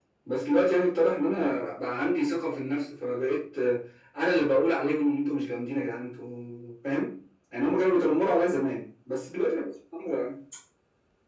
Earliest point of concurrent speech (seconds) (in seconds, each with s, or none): none